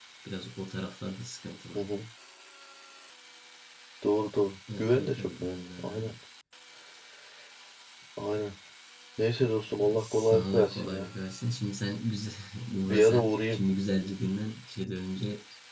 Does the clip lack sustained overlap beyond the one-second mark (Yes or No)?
No